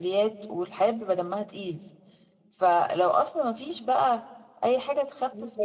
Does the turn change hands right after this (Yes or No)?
No